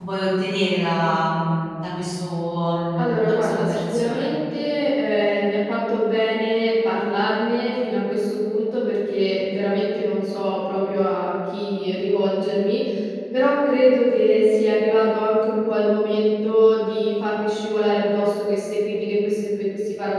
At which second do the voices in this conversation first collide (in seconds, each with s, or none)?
3.0 s